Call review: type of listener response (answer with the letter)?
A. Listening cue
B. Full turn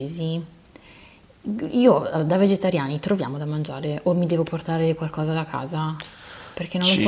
B